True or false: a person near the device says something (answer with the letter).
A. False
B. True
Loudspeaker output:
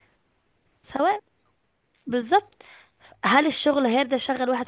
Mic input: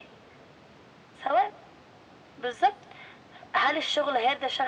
A